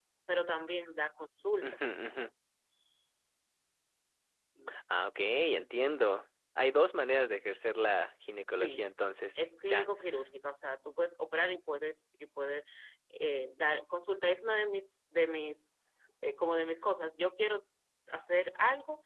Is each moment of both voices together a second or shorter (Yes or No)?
Yes